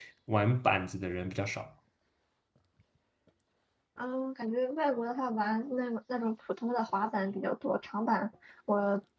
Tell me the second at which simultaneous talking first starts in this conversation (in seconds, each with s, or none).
none